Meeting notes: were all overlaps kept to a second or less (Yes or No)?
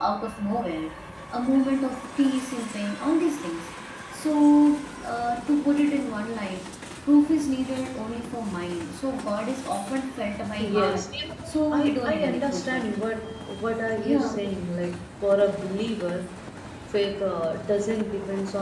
No